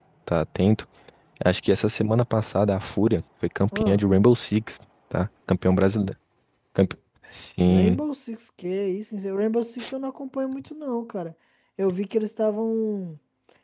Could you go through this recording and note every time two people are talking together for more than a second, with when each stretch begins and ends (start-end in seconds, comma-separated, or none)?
none